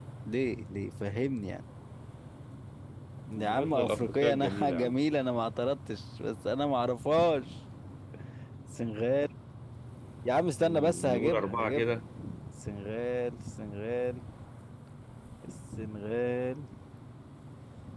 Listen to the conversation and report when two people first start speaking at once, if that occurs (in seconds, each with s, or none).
3.4 s